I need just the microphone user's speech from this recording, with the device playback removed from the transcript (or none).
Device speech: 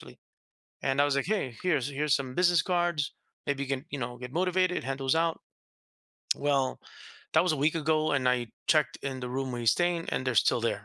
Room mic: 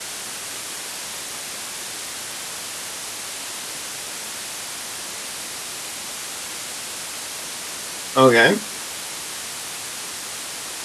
Okay.